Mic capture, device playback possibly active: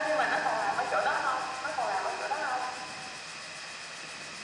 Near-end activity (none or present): none